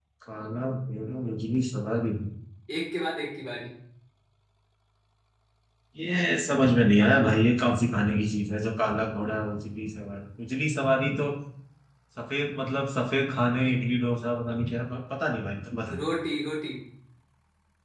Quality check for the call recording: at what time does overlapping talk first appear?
none

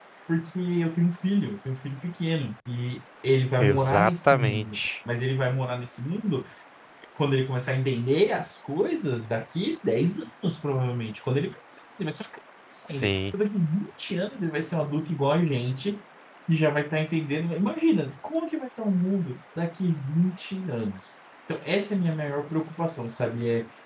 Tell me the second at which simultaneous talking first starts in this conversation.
3.6 s

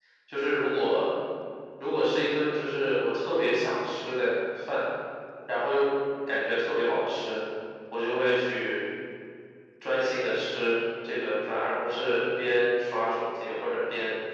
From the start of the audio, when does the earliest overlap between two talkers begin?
none

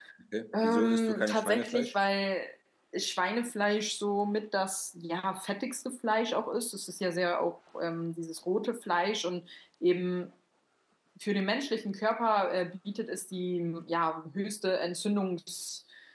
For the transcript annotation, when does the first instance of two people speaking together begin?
0.6 s

